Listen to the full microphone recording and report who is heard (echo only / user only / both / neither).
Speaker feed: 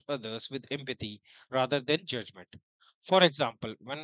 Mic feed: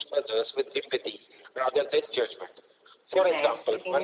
both